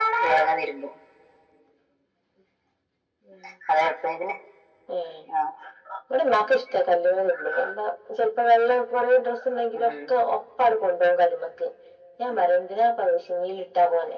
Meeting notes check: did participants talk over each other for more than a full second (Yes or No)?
No